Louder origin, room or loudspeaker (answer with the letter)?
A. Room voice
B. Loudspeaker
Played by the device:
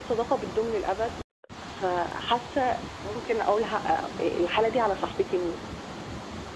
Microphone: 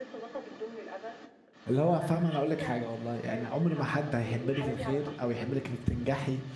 A